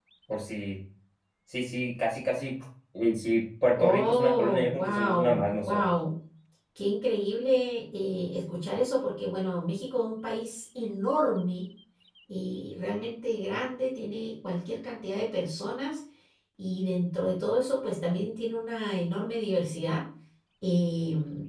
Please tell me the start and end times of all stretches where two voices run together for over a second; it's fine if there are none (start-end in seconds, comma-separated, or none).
3.7-5.9